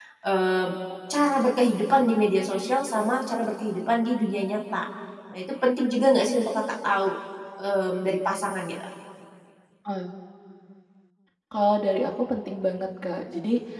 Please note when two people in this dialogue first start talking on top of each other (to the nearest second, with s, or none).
none